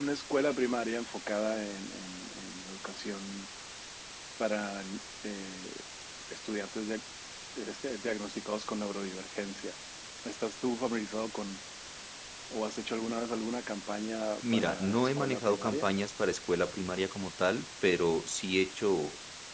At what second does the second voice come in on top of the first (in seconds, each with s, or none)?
14.4 s